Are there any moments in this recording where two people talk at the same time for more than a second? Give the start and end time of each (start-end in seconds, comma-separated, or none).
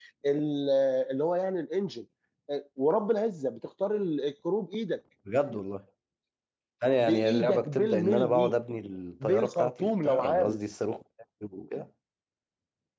7.0-8.5, 9.2-10.6